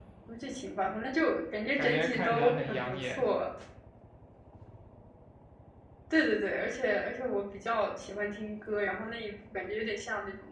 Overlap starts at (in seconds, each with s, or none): 1.8 s